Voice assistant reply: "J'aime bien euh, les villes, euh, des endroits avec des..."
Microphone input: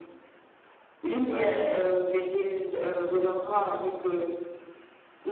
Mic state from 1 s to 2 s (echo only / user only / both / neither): both